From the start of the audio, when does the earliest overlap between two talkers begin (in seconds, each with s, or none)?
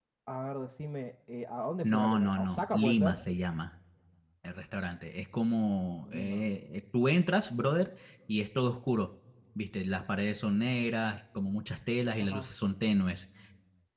1.8 s